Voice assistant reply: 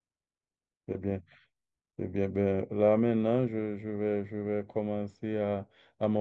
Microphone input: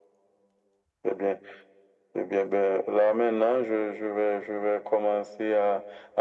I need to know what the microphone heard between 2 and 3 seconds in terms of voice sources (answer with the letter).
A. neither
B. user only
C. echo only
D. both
C